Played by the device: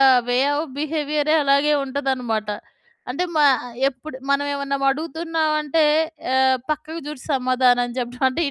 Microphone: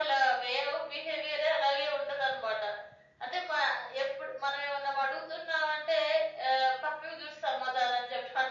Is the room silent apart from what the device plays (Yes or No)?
Yes